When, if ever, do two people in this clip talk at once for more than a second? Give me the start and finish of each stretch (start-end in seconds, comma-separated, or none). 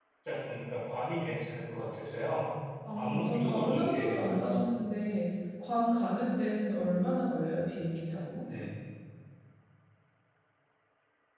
2.9-4.7